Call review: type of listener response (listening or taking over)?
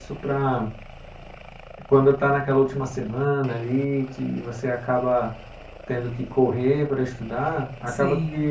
listening